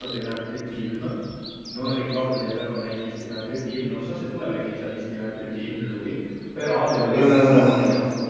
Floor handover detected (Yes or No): No